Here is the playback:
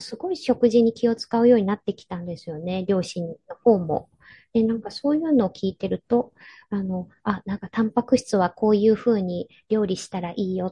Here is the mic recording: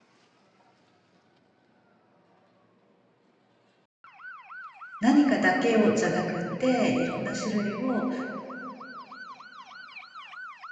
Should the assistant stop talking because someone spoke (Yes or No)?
Yes